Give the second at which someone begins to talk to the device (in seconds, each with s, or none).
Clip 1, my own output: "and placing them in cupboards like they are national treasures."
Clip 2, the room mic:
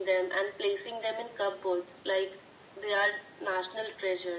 none